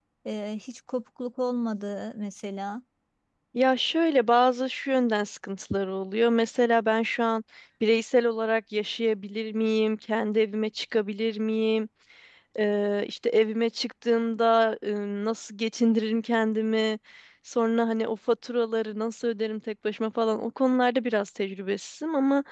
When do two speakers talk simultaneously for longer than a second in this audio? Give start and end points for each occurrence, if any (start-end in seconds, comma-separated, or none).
none